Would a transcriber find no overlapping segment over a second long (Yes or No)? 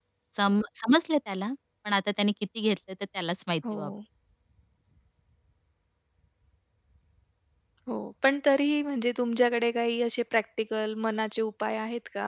Yes